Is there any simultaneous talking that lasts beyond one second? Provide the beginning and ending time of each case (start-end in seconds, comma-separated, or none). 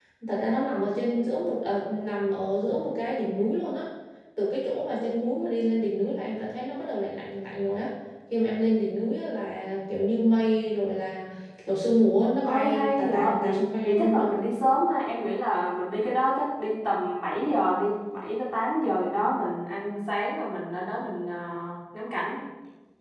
12.5-14.3